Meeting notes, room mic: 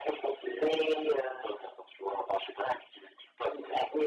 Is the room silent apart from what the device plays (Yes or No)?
Yes